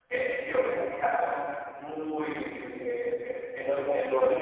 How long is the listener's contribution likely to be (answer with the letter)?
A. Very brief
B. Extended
A